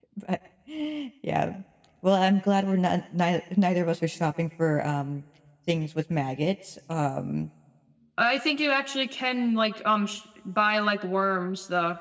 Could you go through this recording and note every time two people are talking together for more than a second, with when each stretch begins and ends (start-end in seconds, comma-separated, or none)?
none